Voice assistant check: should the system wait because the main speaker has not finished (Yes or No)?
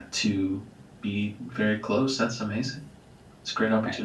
No